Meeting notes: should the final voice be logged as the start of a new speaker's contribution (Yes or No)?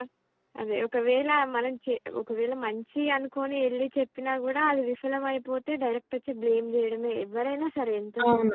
Yes